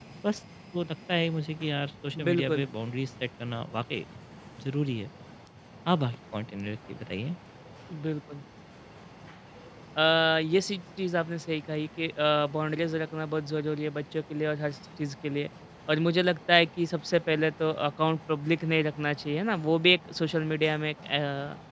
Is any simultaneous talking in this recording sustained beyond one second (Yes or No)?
No